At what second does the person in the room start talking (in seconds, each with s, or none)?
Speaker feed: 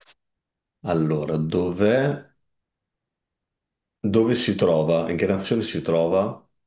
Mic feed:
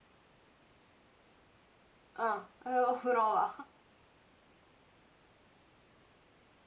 2.1 s